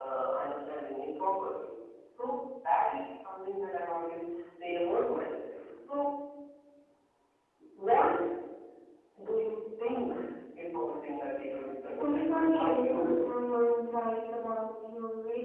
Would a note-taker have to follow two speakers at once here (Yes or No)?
Yes